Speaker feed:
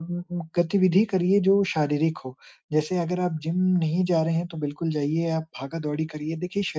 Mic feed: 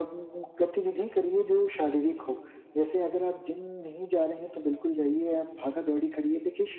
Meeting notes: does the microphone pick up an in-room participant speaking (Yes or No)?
No